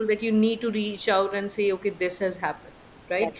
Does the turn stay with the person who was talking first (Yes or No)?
Yes